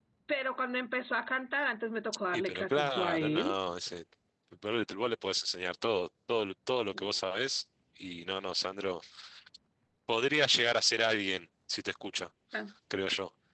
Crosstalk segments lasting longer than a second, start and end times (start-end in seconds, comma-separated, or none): 2.3-3.6